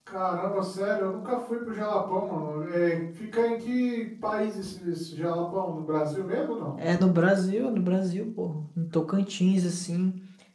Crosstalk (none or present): none